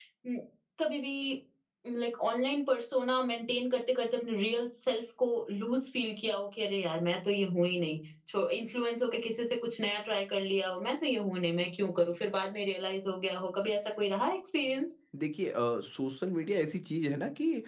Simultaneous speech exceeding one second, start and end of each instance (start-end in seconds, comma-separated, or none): none